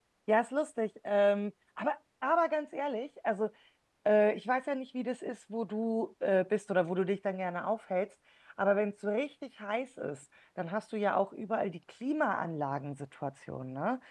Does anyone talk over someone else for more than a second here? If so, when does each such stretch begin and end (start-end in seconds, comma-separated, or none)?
none